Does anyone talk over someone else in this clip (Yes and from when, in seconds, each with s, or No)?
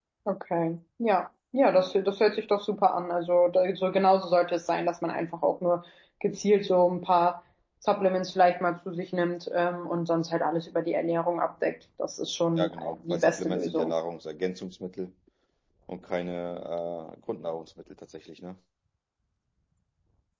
Yes, from 12.6 s